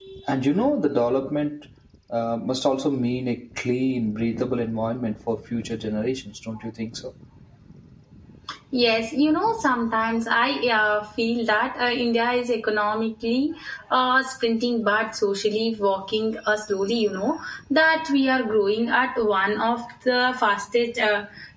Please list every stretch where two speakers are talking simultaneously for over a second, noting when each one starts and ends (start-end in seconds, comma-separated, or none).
none